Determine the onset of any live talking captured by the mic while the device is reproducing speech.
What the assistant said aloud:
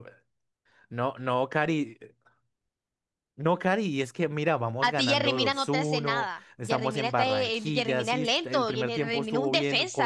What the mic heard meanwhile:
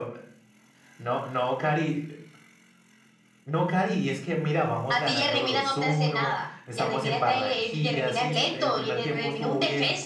none

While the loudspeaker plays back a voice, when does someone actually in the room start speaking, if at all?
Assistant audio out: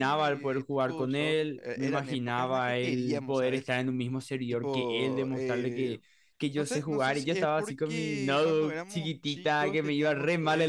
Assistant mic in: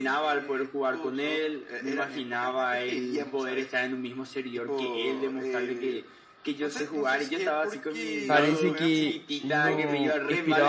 8.2 s

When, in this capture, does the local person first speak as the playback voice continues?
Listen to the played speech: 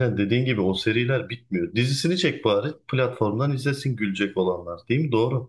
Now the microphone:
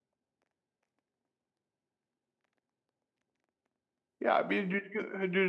4.2 s

